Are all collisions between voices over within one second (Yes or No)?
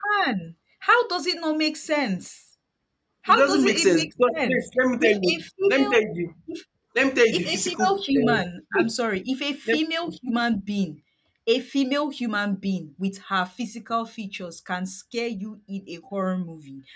No